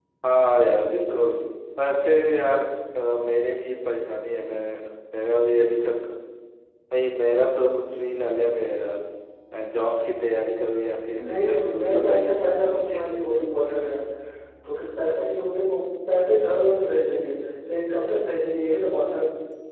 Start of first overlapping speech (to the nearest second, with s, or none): 11 s